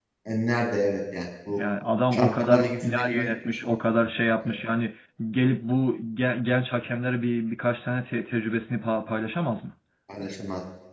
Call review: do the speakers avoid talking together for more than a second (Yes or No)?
No